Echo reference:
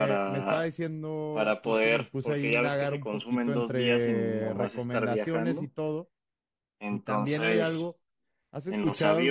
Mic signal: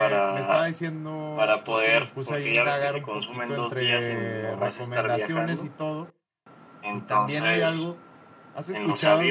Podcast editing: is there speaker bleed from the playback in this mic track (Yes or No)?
Yes